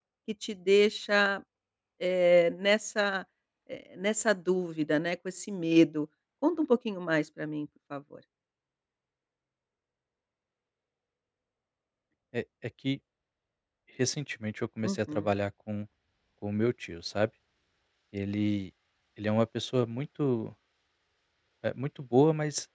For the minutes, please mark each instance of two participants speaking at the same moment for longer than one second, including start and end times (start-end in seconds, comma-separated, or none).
none